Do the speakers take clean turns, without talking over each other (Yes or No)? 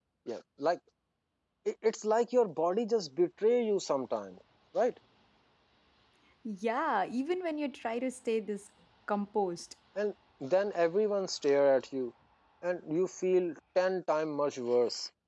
Yes